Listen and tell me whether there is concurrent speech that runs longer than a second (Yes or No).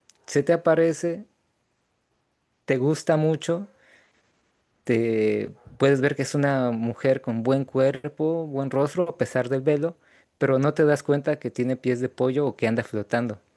No